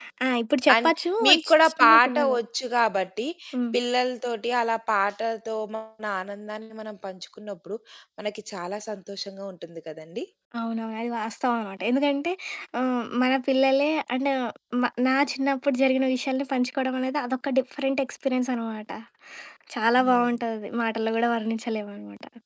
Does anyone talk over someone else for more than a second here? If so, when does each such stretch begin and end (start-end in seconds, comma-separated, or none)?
0.7-2.4